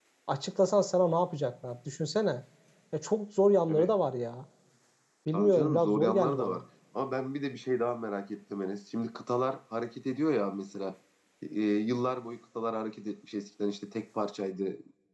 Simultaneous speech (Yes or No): Yes